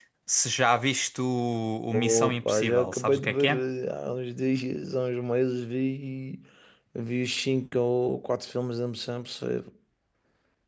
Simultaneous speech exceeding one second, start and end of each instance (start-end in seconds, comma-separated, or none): 1.9-3.5